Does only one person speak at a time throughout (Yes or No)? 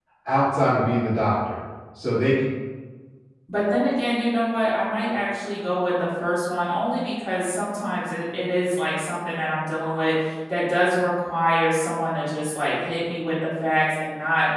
Yes